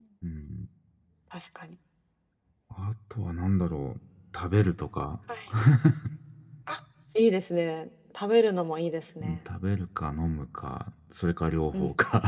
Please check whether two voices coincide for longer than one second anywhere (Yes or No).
No